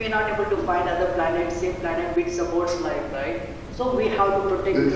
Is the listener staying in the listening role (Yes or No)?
Yes